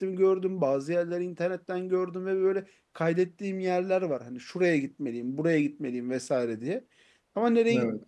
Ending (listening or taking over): listening